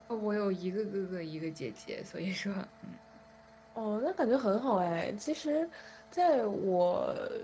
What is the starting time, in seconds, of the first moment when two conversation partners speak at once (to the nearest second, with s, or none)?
none